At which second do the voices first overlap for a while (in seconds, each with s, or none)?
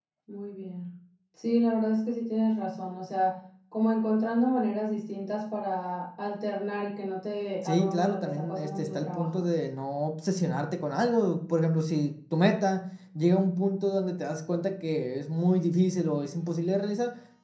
7.6 s